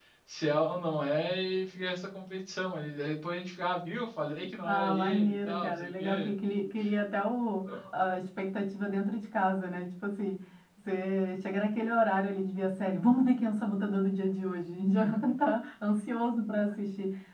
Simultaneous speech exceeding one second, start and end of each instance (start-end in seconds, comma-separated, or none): 4.7-6.3